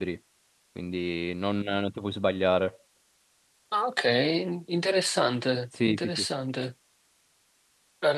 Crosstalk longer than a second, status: none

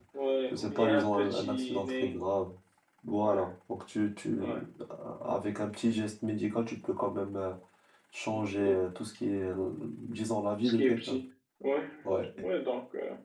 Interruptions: present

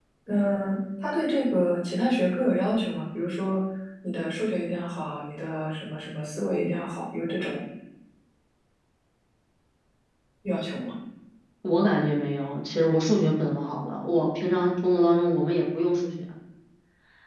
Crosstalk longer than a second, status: none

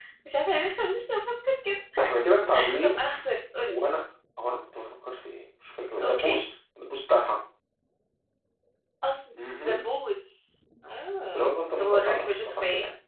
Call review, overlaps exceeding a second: present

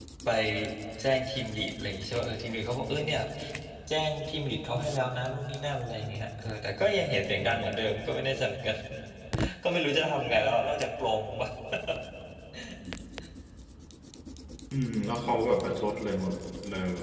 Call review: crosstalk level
none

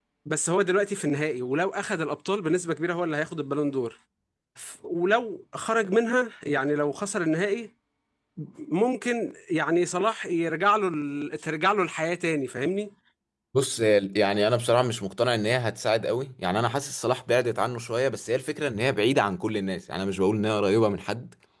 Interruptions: none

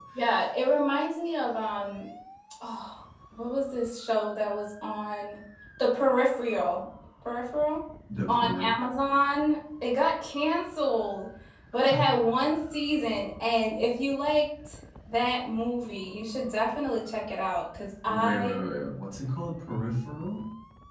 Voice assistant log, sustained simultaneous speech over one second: none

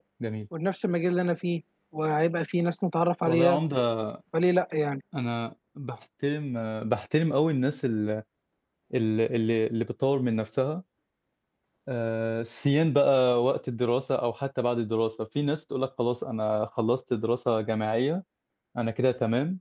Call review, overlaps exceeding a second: none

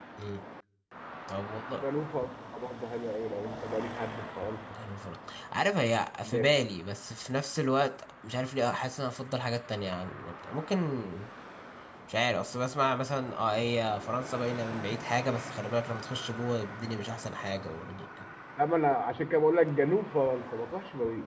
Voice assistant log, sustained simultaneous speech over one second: none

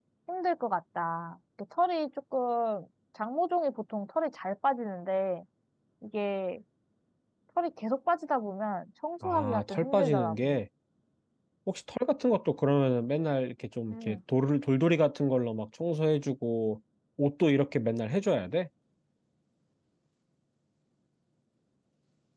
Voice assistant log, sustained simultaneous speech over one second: present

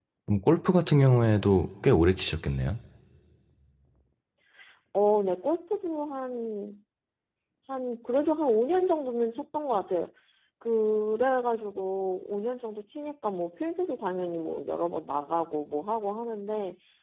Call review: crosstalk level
none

